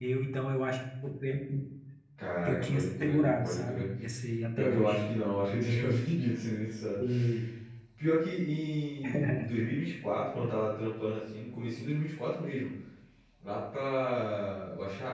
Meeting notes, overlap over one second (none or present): present